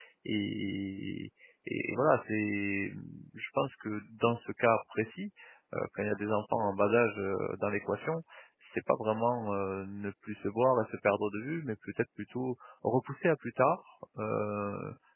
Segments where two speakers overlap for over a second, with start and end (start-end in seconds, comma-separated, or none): none